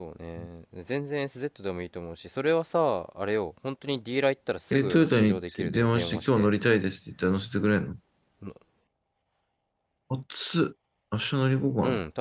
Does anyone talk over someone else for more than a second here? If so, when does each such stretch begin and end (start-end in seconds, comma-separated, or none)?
4.7-6.5